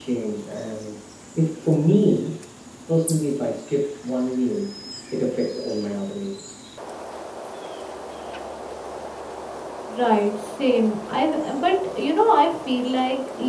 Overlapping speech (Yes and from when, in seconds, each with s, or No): No